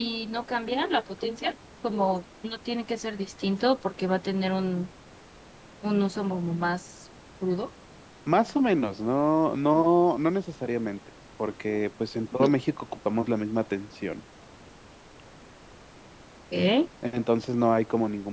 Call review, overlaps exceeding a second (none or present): none